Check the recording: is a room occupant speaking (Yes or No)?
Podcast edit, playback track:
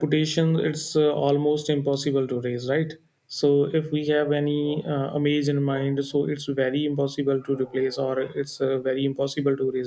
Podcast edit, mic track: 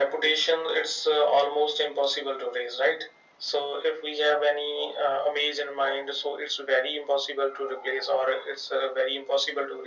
No